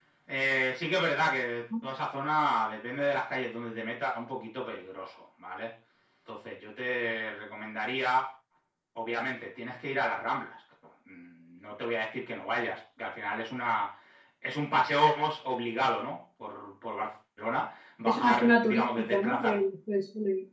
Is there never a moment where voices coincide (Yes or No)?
No